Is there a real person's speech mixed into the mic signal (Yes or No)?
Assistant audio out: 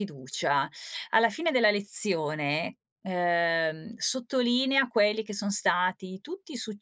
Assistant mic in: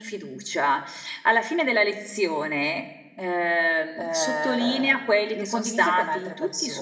Yes